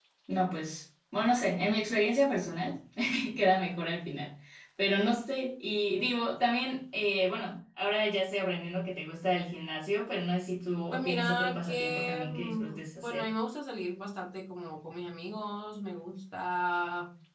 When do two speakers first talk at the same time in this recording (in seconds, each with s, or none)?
10.9 s